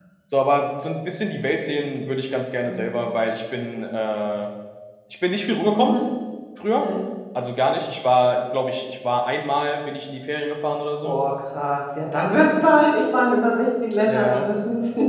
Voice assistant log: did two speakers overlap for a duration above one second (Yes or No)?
No